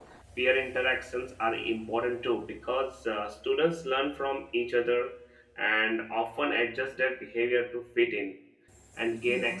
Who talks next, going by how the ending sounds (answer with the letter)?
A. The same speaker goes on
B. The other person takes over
A